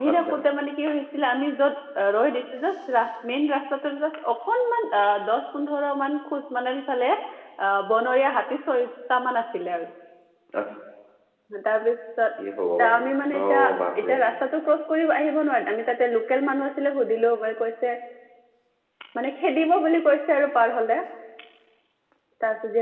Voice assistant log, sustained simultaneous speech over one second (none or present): none